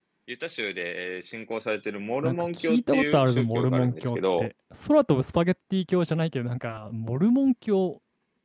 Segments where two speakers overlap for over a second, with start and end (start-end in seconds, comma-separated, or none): 2.2-4.5